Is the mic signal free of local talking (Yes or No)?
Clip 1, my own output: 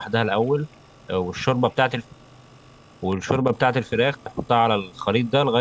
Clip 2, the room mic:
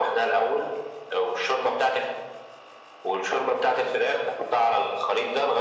Yes